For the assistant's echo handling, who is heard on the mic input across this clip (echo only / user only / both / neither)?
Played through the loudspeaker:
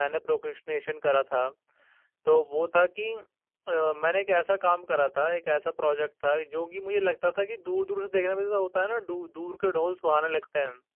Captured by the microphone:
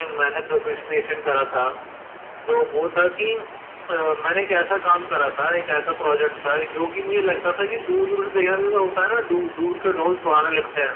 echo only